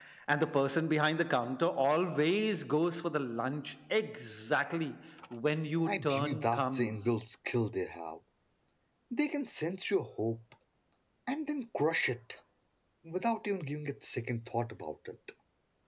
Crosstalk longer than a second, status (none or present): present